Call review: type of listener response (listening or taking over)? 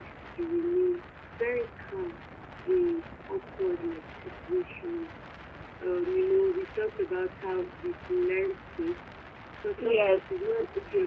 listening